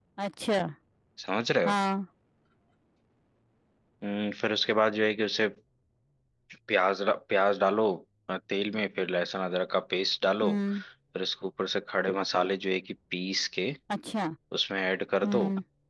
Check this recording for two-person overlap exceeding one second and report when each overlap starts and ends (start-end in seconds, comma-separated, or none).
none